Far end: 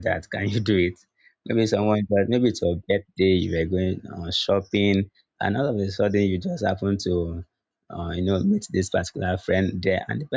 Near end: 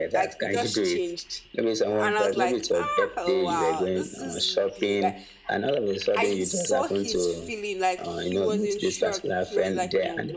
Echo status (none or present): present